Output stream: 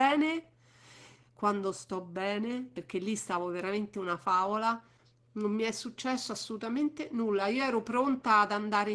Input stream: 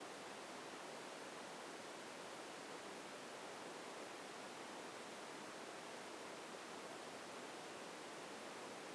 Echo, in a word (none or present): none